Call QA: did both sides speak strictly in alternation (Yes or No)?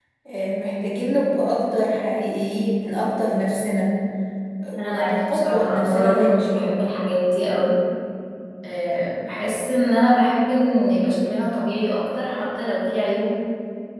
No